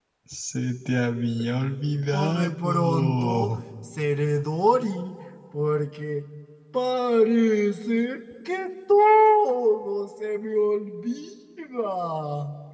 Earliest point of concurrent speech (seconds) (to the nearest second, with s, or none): 2 s